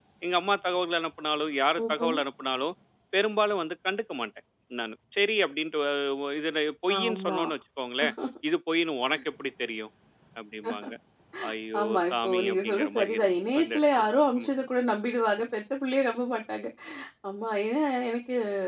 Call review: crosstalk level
present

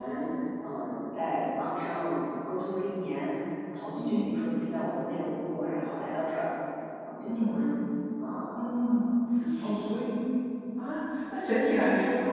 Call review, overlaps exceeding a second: none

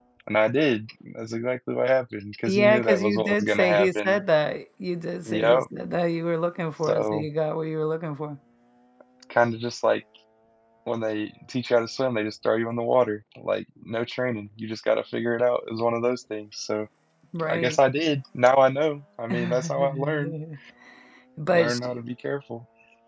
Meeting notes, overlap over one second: present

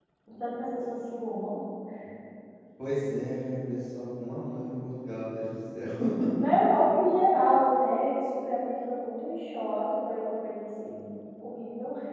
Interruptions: none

